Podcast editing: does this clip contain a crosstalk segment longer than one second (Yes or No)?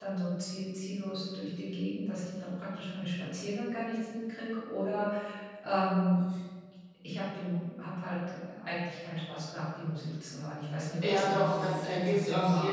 Yes